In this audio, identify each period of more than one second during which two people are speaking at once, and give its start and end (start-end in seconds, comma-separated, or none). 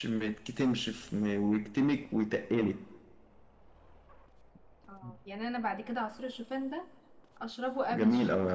none